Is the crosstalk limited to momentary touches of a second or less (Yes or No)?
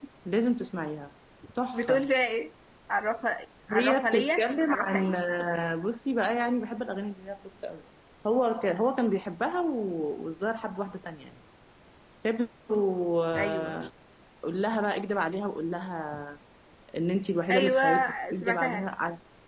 No